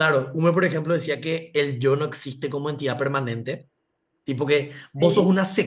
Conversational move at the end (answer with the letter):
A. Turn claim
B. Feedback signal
B